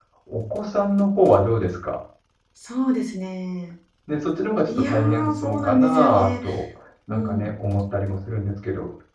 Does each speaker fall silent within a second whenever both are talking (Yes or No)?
No